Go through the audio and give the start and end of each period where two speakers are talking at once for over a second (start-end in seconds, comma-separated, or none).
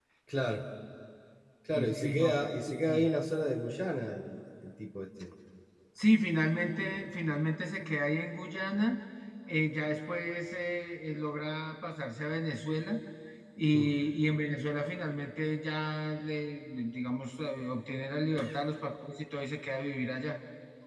1.7-3.0